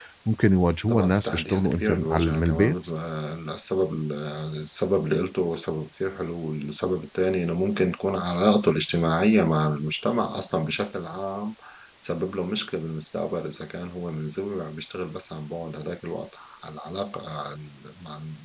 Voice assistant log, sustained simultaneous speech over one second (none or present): present